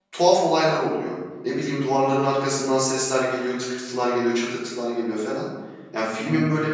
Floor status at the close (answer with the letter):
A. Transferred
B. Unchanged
B